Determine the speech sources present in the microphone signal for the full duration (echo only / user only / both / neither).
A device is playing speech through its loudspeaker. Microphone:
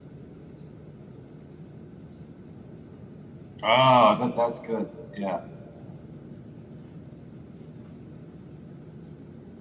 user only